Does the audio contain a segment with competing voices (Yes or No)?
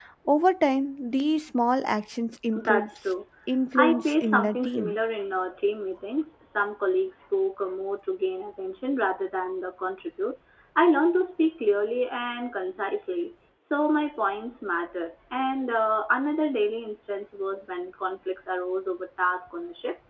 Yes